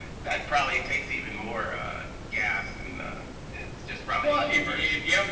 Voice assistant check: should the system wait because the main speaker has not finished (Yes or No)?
No